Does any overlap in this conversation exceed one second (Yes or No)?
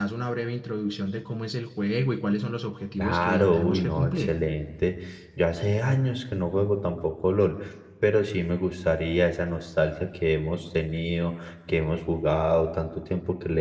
Yes